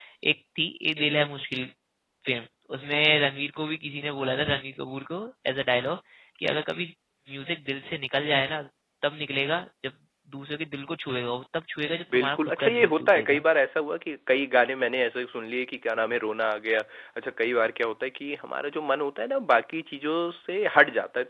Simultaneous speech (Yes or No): Yes